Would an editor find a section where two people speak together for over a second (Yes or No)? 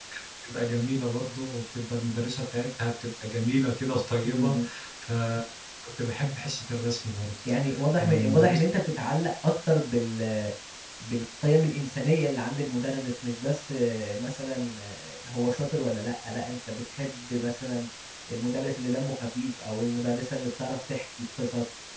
No